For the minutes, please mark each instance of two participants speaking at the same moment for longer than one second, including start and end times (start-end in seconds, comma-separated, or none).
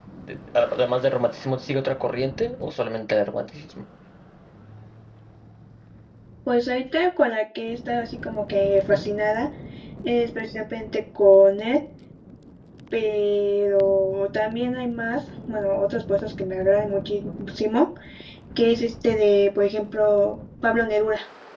none